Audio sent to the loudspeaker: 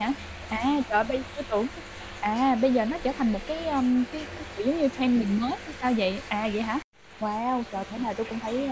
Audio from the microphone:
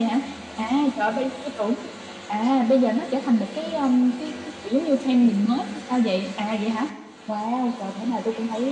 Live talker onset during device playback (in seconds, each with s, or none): none